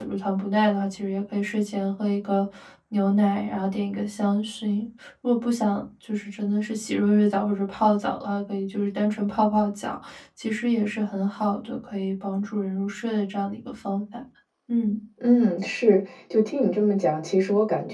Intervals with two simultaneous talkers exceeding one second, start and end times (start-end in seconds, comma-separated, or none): none